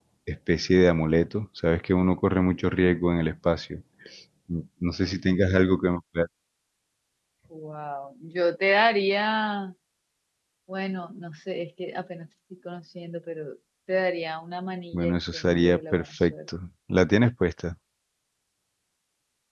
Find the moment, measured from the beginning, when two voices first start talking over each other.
15 s

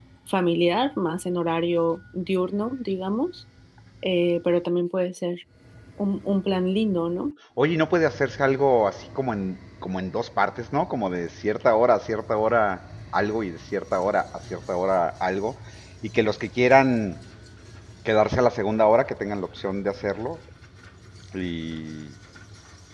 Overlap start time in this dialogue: none

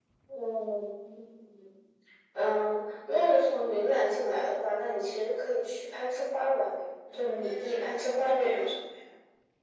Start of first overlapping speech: 7 s

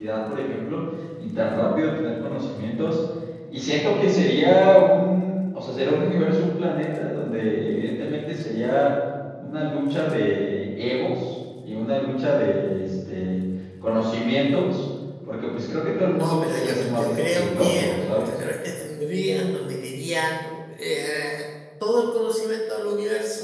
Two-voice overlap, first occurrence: 16 s

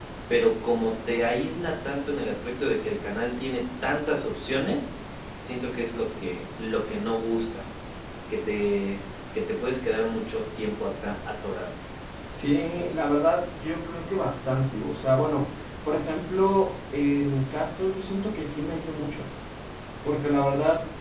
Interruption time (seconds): none

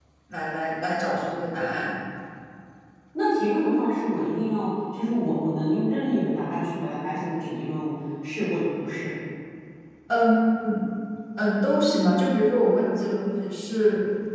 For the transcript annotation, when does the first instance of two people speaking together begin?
none

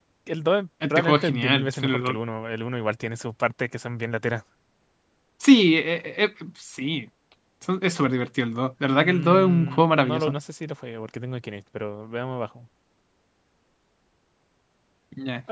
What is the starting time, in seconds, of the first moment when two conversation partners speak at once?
1 s

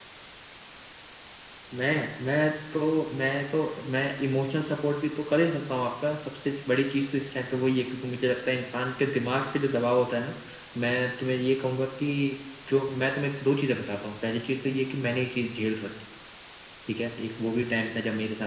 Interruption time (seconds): none

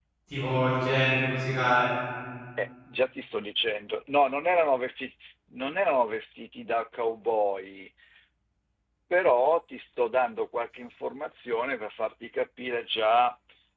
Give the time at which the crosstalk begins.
none

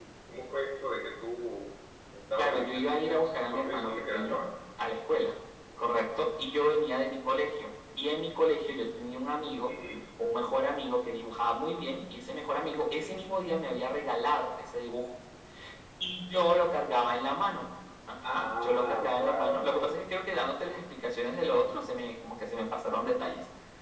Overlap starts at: 2 s

